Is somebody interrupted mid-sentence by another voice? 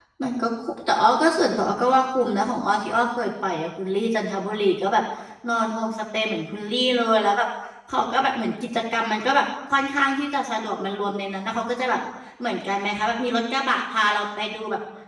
No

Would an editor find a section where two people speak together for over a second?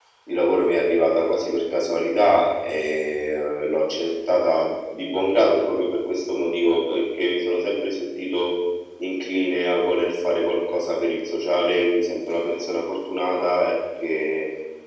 No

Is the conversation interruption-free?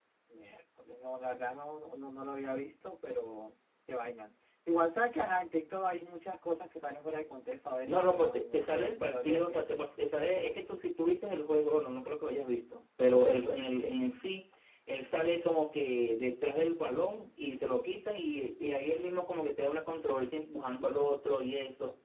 No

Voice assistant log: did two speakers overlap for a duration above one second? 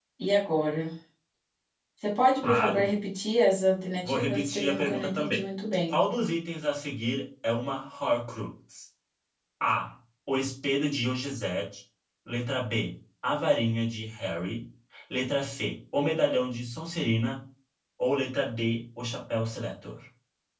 Yes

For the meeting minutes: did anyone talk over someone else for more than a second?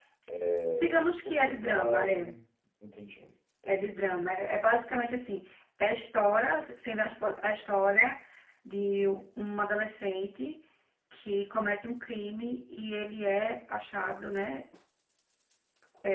Yes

